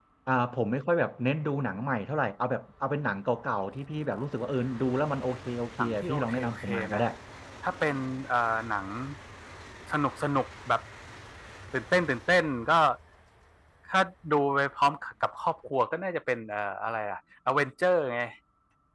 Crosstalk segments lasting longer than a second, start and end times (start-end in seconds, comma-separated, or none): 5.8-7.0